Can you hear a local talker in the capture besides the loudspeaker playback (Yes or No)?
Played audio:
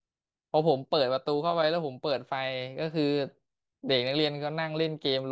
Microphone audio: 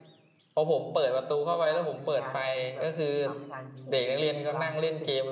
Yes